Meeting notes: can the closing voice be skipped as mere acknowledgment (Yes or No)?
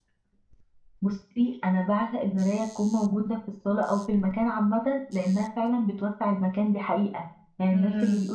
Yes